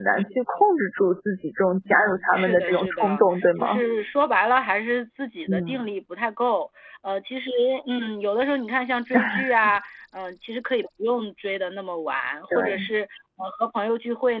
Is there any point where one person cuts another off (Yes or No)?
Yes